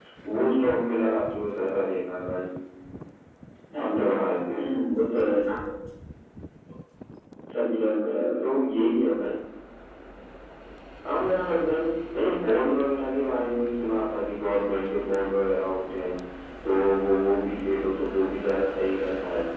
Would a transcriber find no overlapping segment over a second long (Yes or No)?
Yes